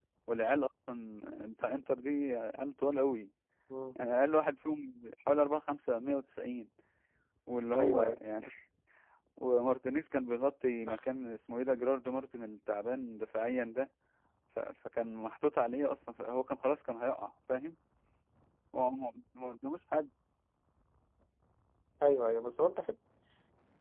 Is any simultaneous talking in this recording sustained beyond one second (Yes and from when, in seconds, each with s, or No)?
No